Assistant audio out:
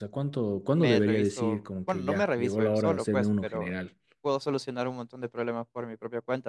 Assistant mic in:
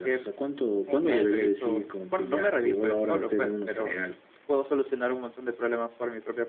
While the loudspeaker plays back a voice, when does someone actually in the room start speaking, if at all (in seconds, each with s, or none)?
0.8 s